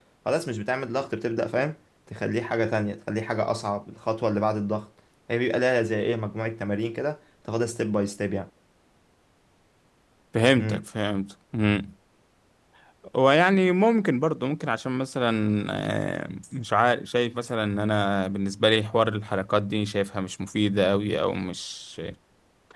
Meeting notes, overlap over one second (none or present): none